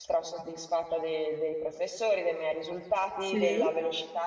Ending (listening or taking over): listening